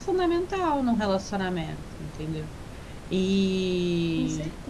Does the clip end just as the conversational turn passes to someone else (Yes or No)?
No